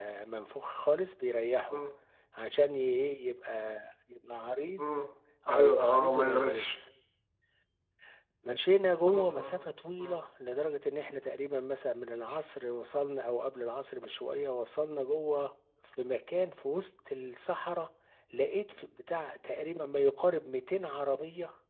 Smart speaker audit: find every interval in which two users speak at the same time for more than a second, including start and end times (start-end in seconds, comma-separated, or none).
5.5-6.7